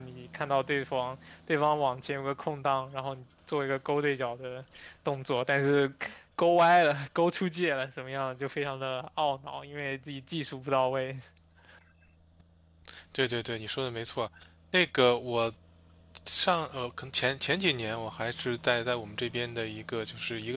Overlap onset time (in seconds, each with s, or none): none